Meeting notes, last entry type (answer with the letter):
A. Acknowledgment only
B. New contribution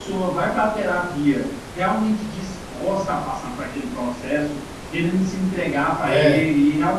A